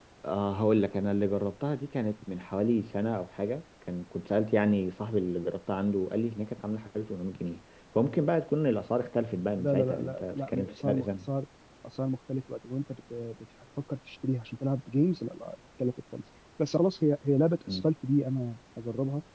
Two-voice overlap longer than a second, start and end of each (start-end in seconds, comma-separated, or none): 9.6-11.3